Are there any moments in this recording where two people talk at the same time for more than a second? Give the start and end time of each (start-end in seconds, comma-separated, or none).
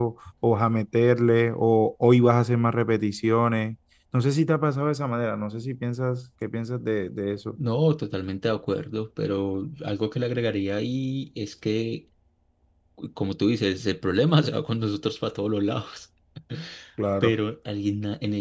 none